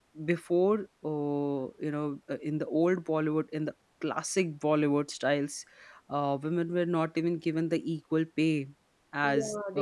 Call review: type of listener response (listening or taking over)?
taking over